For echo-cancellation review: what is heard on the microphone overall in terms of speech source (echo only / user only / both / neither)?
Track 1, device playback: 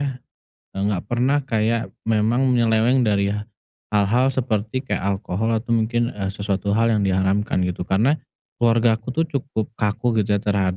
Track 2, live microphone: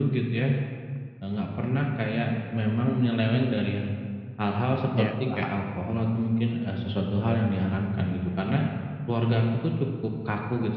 both